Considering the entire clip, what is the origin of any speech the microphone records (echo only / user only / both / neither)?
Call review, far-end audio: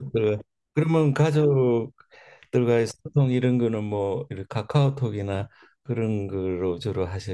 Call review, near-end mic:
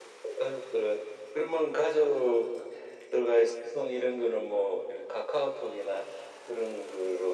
echo only